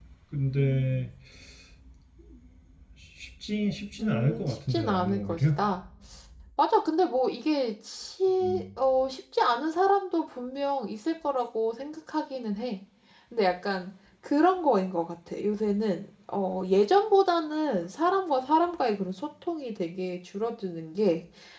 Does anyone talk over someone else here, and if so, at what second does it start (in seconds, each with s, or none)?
4.0 s